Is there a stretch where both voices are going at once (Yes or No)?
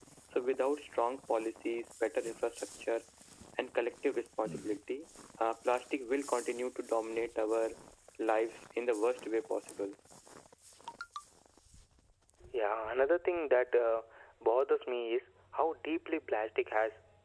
No